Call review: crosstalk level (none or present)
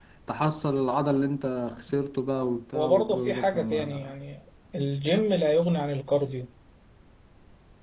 present